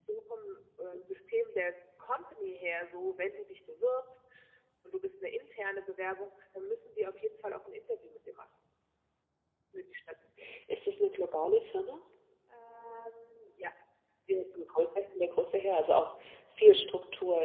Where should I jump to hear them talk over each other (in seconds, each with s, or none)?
none